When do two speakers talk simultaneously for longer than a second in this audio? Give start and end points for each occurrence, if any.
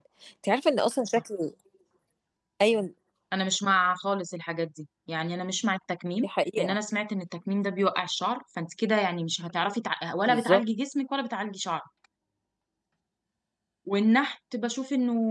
none

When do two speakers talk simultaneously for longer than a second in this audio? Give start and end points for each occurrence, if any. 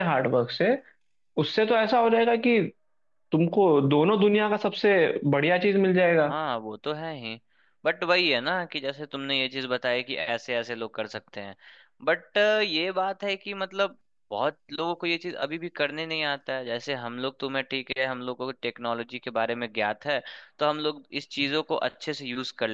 none

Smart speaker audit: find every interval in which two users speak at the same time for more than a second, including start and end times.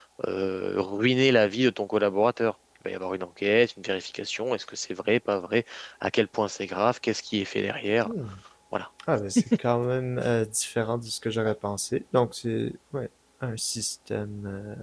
none

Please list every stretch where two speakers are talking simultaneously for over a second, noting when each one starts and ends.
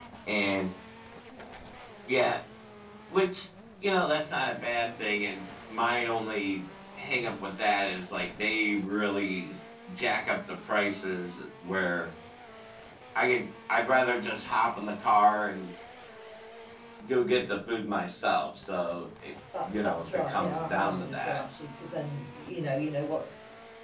19.6-21.4

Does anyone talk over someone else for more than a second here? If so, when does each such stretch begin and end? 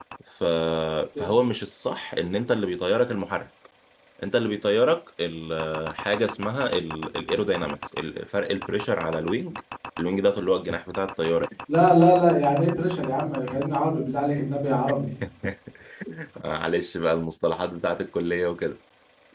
none

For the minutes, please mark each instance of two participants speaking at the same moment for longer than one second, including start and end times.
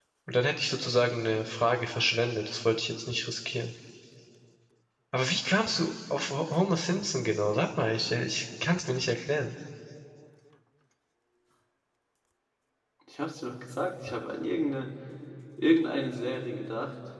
none

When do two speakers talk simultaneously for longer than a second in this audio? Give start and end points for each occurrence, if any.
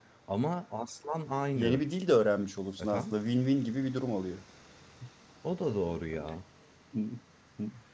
none

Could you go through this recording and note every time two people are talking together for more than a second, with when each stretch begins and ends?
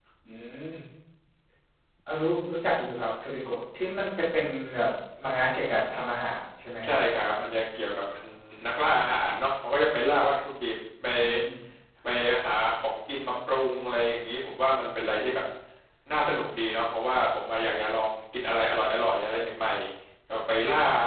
none

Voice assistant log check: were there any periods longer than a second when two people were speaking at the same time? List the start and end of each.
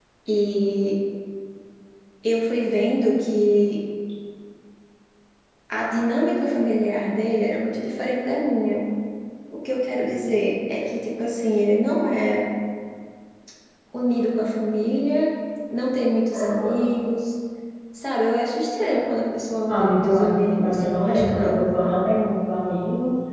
19.7-21.6

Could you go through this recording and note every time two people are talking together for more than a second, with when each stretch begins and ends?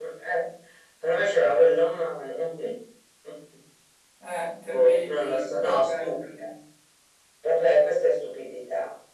4.7-6.4

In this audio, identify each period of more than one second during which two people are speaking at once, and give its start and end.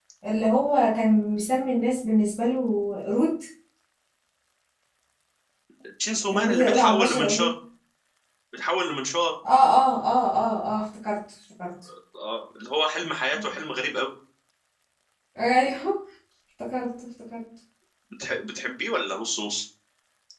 6.3-7.5

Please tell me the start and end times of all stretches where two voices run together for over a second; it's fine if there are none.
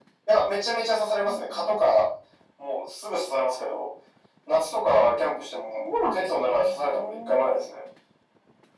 5.8-7.6

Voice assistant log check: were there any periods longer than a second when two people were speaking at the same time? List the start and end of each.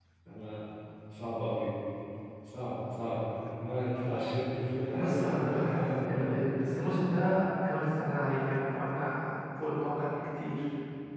4.9-6.4

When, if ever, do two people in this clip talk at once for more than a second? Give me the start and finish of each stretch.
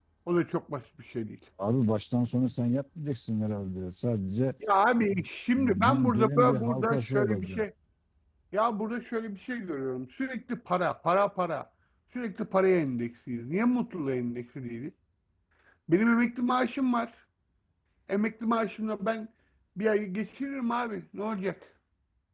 5.6-7.6

